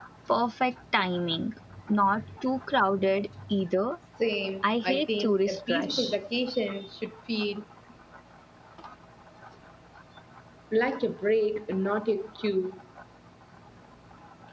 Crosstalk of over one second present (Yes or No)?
Yes